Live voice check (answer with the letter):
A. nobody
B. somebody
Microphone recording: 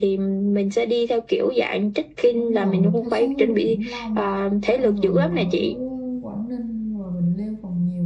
B